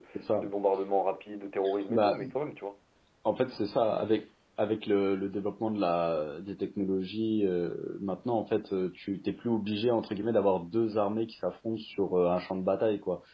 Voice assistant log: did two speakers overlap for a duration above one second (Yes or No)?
No